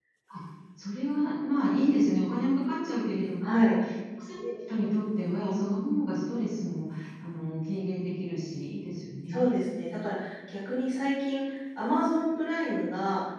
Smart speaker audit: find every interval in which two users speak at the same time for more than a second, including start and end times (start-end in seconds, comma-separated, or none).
none